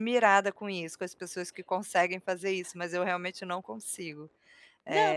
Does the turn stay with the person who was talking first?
No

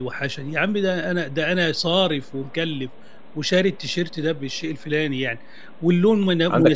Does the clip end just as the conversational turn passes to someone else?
Yes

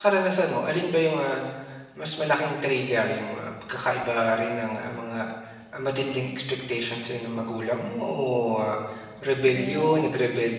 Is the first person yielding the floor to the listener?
No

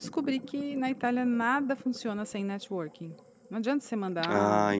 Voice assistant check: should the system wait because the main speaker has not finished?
No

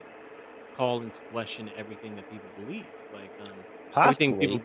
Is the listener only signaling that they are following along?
Yes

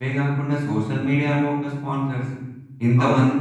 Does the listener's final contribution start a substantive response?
No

